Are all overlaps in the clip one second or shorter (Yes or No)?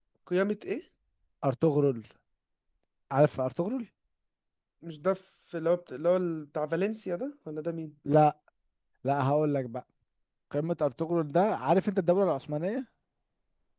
Yes